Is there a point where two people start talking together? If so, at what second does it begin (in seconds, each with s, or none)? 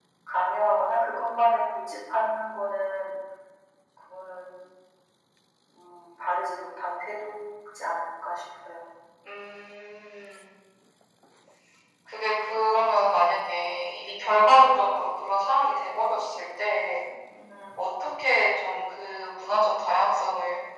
none